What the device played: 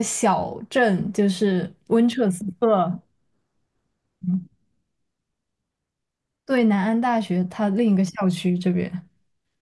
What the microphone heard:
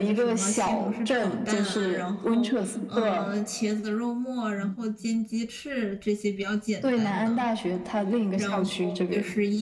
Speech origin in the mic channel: both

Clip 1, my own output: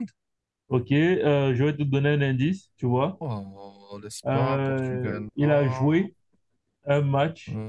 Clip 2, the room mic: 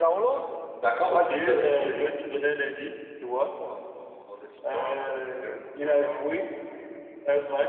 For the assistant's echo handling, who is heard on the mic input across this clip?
both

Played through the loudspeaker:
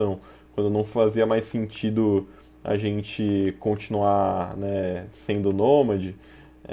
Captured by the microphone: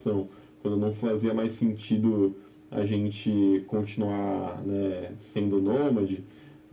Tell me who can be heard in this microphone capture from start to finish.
echo only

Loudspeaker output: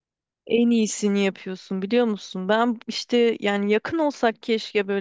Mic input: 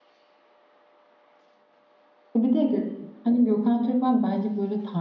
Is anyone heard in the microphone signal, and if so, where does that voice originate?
user only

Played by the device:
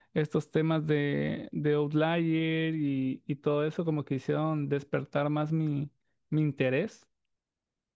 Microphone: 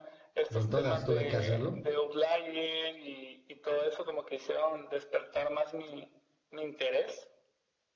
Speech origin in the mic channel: both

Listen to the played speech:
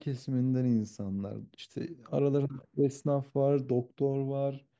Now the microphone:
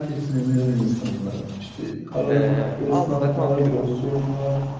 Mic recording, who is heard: both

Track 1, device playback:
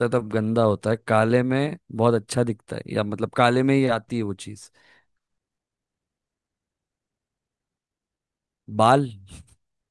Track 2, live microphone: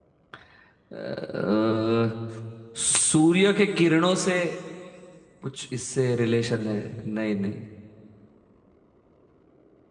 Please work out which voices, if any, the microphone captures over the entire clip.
user only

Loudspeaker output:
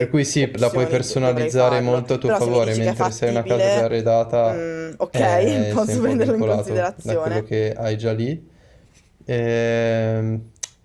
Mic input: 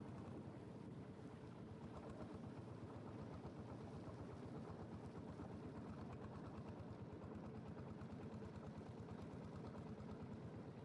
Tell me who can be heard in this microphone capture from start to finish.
neither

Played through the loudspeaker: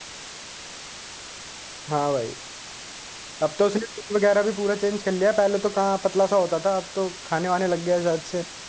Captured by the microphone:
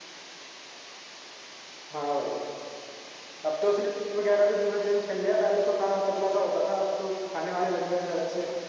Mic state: echo only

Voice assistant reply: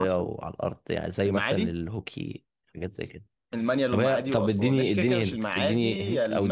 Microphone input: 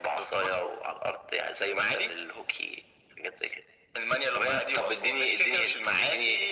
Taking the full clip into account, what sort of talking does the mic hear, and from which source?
echo only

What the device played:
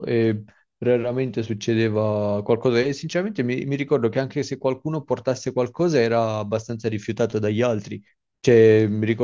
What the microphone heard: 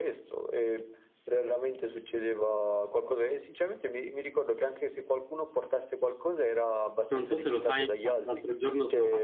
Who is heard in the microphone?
both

